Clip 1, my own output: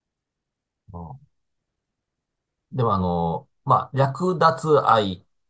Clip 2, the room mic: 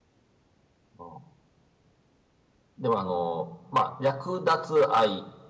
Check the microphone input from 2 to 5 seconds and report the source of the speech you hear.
echo only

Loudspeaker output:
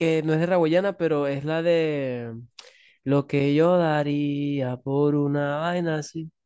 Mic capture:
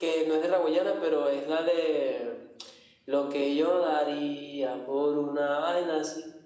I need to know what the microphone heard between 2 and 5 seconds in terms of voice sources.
echo only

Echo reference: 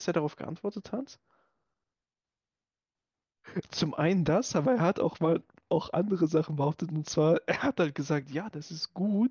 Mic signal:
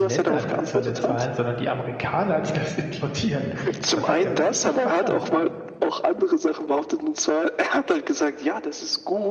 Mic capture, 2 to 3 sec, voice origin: user only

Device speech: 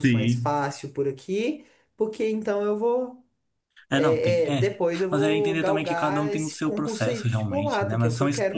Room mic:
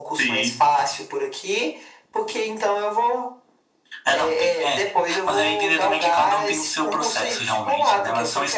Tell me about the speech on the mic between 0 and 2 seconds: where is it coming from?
echo only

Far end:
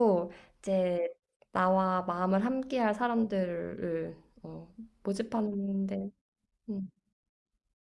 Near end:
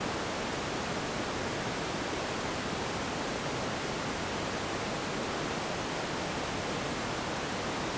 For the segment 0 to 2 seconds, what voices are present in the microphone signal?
neither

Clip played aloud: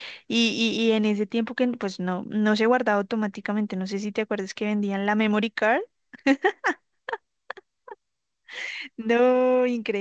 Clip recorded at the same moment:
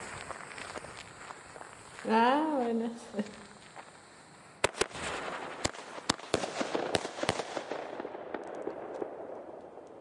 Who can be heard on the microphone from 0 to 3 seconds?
user only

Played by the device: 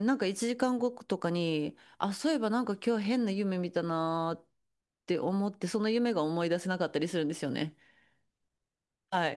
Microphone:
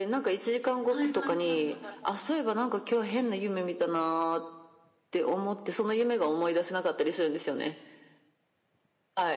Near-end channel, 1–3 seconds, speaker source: both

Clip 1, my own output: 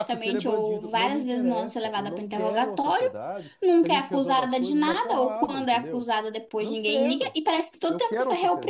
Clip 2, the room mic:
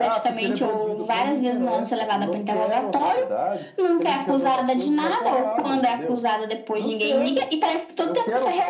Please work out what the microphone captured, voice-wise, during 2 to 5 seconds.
echo only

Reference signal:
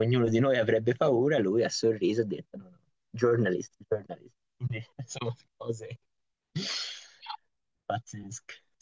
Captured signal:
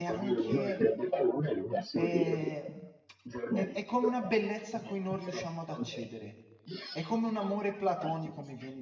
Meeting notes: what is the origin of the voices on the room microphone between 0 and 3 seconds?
both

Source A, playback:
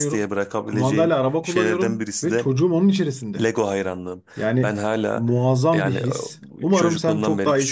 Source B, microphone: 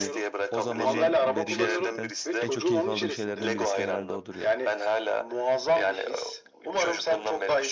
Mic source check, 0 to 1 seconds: both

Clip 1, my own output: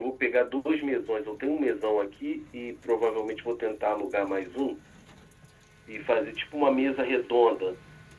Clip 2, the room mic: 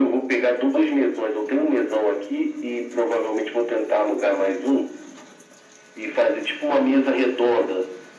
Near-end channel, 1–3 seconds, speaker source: echo only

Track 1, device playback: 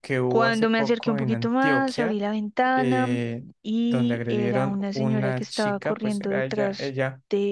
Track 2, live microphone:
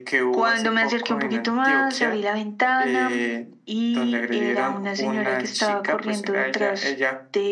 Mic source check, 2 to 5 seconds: echo only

